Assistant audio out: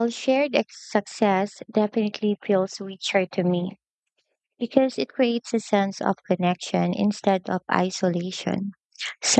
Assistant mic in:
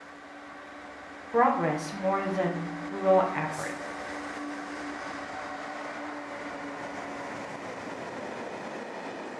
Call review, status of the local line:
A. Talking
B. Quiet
A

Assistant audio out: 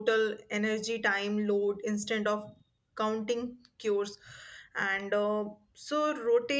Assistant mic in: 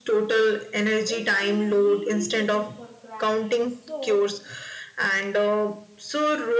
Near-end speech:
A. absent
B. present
B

